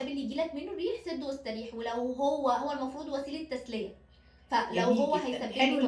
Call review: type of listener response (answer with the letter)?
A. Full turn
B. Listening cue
A